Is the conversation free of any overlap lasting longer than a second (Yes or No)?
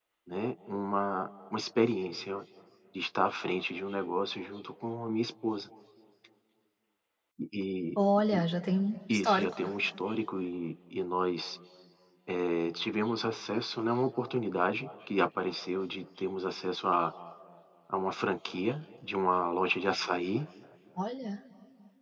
Yes